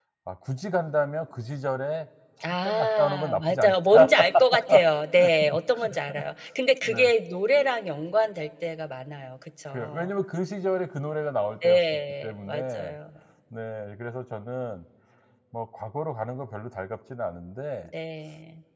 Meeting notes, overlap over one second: present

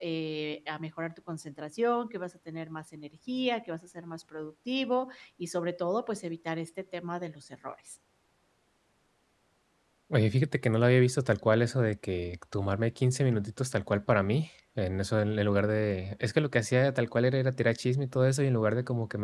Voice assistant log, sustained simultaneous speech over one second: none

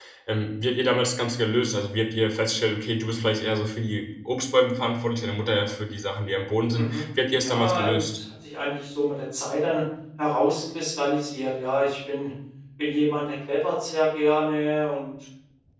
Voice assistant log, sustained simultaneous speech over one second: present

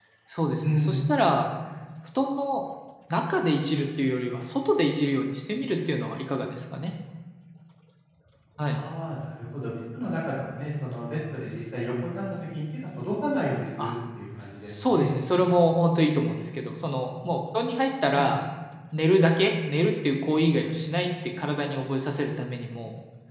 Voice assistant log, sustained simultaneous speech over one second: none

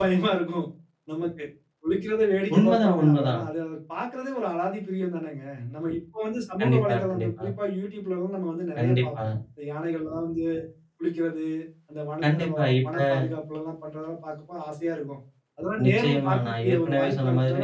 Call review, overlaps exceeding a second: present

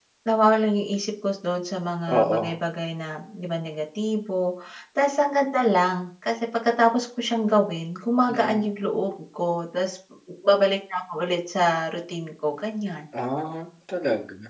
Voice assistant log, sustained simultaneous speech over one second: none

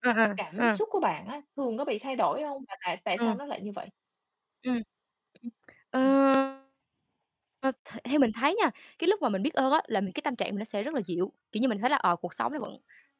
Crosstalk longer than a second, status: none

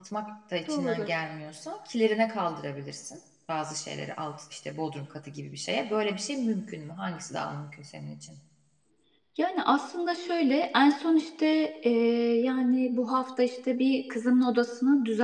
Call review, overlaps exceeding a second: none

